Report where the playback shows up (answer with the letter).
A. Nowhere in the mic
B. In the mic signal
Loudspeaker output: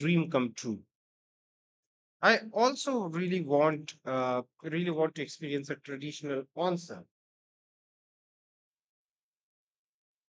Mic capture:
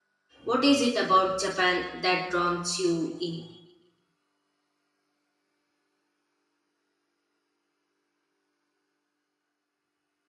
A